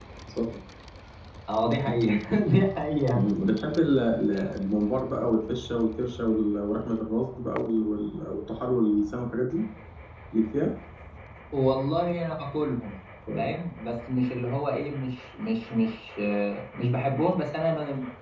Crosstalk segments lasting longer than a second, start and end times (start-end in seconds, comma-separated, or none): none